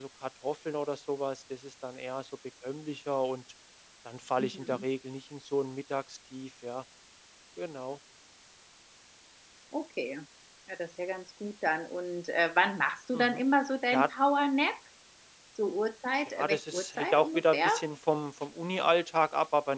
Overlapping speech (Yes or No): Yes